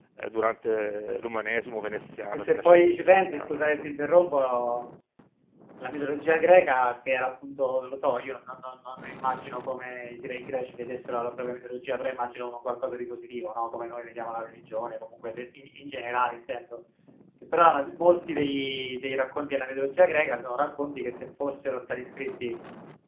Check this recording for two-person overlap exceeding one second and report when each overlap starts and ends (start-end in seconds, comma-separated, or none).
2.3-3.7